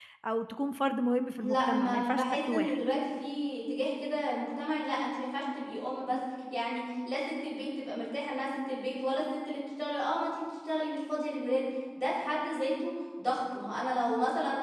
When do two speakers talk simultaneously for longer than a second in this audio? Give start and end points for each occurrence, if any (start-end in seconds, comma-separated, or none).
1.4-2.8